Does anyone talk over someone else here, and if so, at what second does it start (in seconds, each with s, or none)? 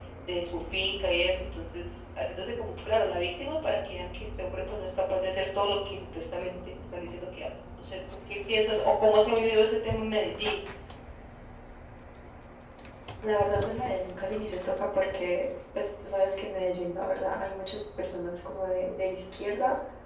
none